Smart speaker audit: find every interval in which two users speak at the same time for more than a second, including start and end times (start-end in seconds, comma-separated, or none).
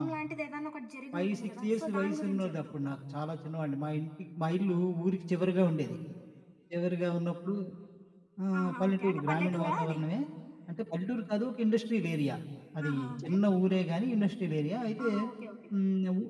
1.2-2.5, 8.6-10.0